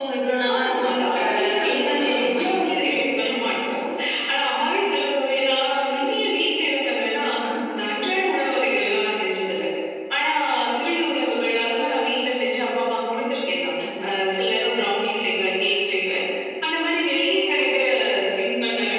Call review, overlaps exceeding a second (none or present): present